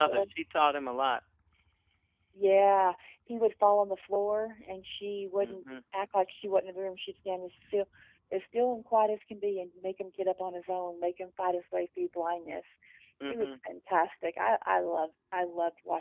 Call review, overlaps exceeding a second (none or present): none